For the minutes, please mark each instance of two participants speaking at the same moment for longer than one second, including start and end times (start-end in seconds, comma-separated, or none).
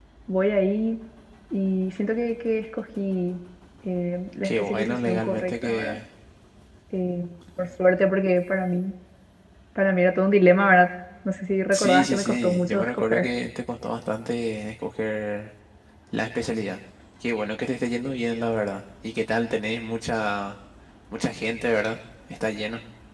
4.4-6.0, 11.7-13.3